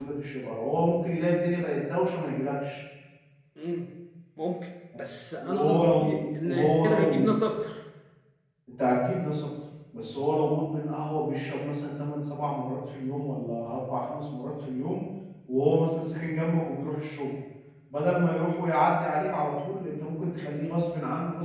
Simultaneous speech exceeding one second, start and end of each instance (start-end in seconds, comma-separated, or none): 5.4-7.3